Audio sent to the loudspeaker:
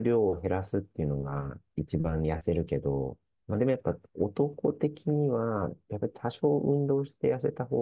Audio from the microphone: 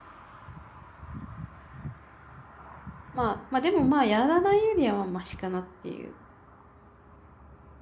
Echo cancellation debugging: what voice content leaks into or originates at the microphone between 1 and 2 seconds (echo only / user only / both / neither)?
neither